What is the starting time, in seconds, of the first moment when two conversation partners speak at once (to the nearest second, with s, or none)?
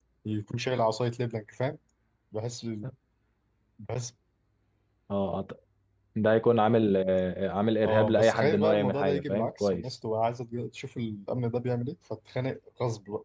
8 s